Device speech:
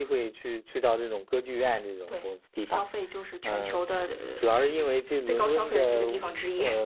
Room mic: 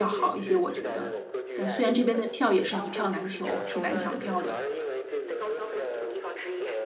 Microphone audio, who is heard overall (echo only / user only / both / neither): both